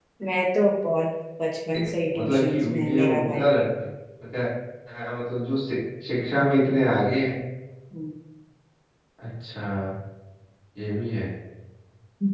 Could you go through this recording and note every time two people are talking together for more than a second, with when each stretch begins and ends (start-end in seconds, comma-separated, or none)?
2.1-3.5